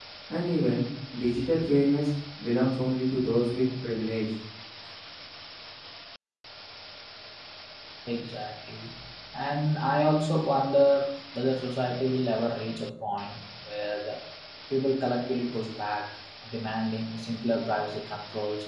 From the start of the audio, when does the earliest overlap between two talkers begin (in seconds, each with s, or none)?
none